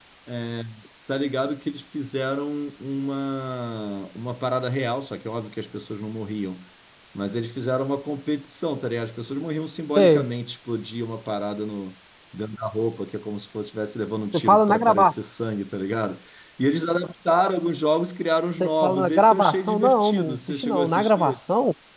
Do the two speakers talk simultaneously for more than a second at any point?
Yes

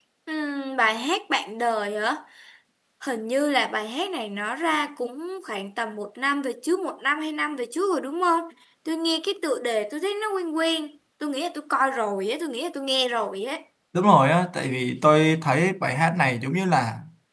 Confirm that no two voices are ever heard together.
Yes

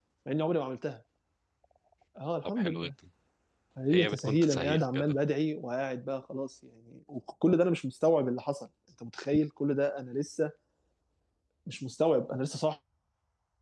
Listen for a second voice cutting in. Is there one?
Yes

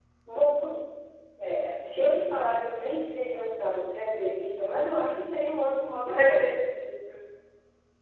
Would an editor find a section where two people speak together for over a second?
No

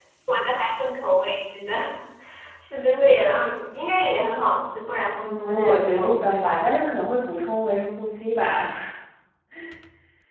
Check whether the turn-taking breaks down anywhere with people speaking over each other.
Yes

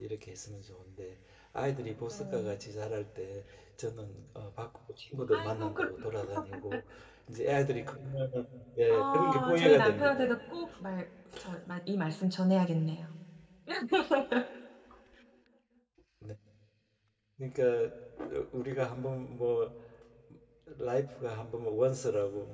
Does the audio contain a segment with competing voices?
Yes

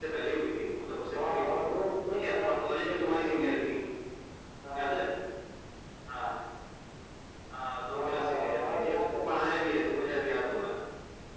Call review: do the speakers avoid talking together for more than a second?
No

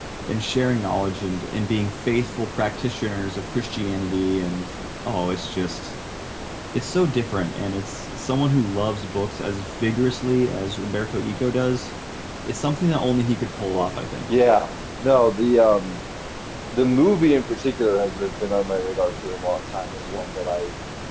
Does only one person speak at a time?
Yes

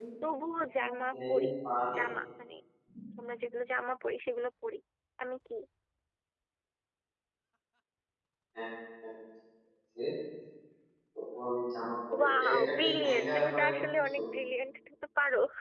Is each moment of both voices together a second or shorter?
No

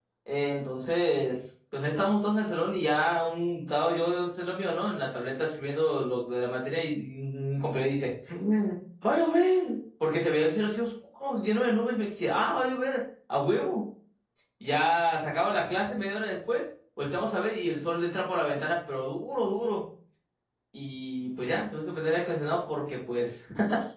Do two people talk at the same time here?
No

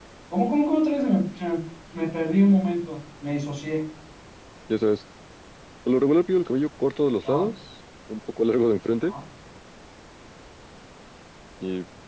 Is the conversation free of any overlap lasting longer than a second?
Yes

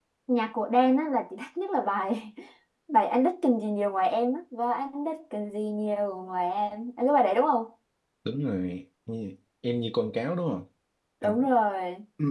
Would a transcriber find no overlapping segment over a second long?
Yes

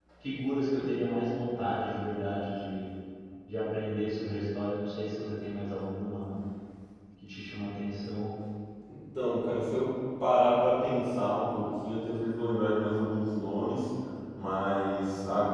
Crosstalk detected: No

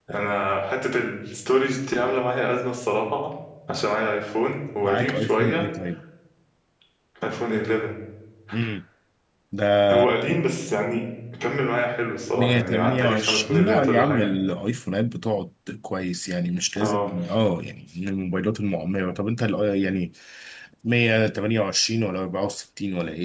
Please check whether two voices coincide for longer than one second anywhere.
Yes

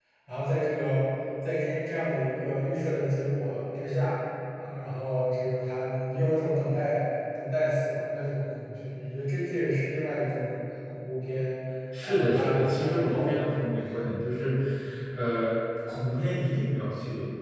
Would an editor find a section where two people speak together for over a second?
Yes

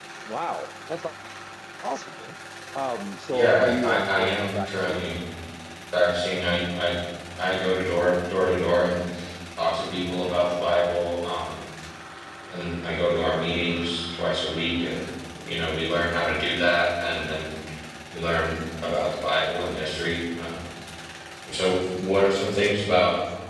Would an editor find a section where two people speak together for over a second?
Yes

